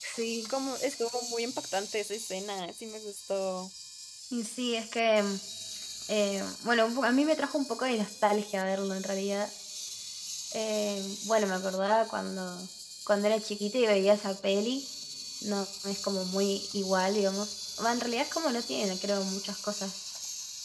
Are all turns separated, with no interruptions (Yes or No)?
Yes